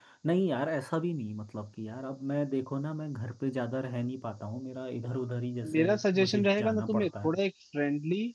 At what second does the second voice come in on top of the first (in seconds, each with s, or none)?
5.6 s